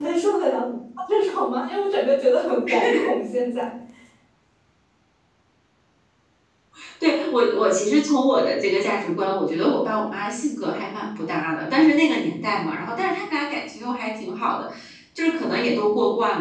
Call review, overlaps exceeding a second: none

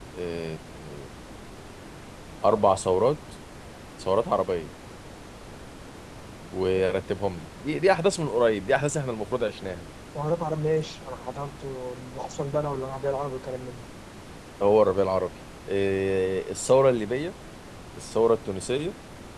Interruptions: none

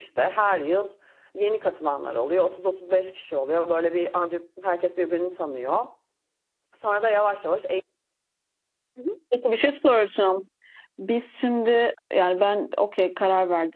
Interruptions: none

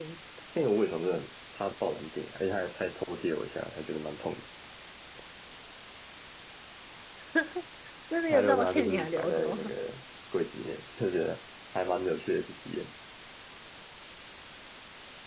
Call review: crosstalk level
present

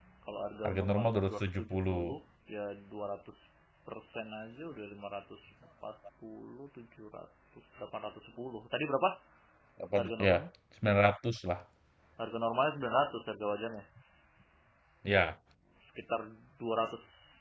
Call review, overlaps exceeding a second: present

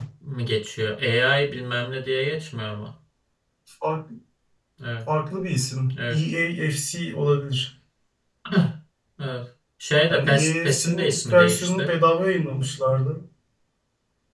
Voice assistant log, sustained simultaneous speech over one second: present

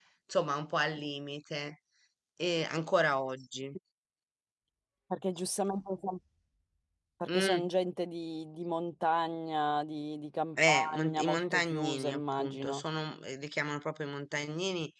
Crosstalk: present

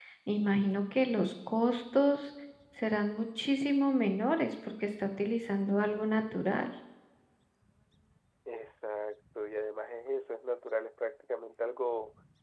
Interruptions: none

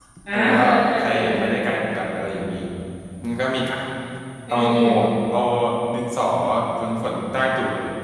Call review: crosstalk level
present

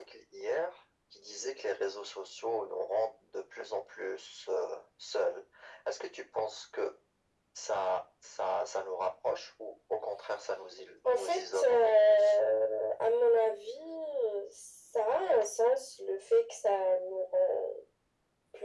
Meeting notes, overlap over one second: present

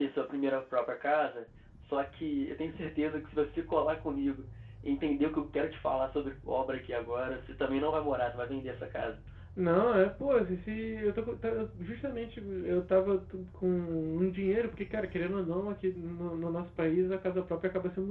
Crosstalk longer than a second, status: none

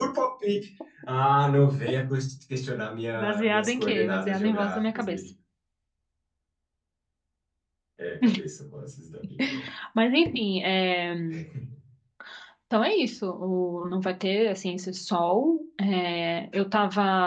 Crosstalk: present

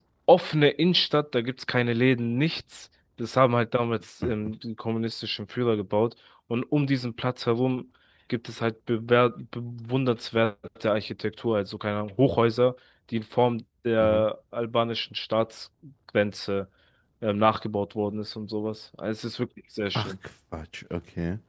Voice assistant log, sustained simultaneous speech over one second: none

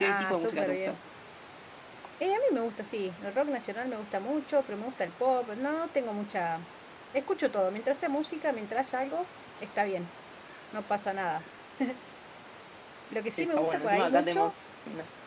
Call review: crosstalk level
present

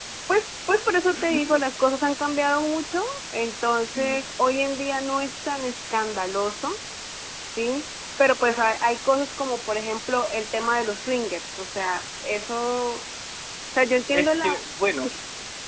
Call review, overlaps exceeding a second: none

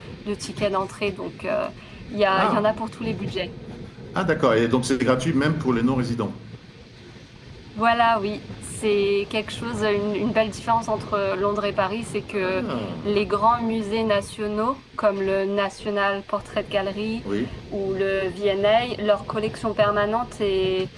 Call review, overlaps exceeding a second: none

